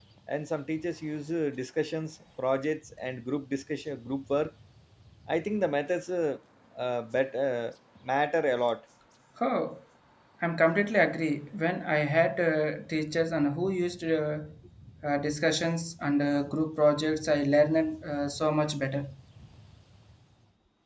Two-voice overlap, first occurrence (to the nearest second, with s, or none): none